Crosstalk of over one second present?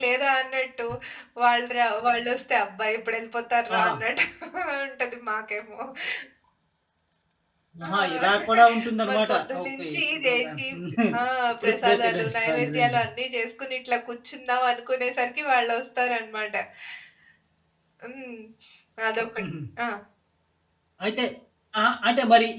Yes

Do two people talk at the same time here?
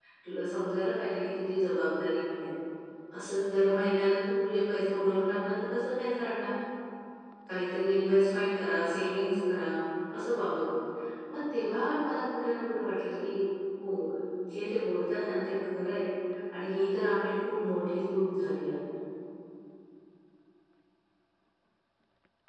No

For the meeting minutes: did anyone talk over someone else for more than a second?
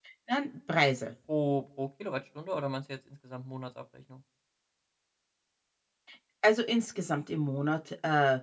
No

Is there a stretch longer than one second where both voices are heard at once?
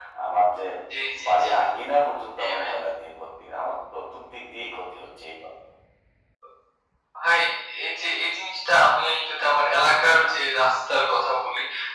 No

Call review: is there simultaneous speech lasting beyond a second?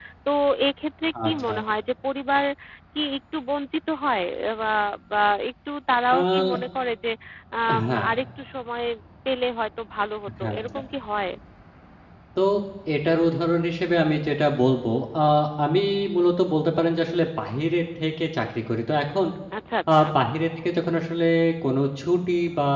No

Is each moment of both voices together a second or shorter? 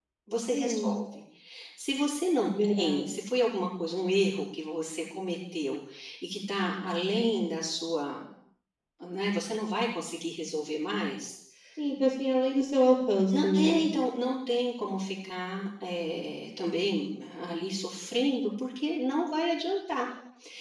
Yes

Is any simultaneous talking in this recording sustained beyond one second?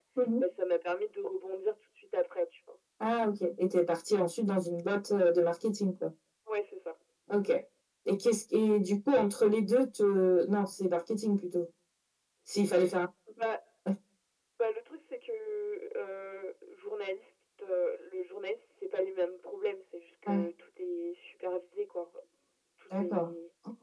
No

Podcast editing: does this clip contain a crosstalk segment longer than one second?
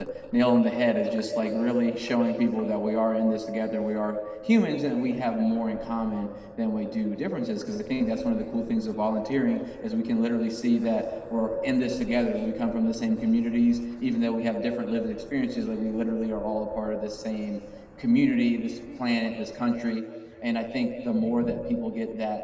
No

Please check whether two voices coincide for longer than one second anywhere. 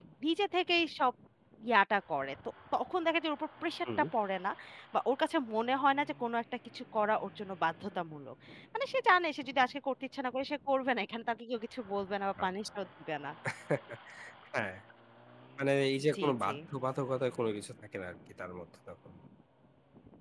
No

